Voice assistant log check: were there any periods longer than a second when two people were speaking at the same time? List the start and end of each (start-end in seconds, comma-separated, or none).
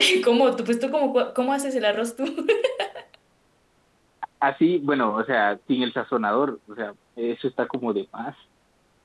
none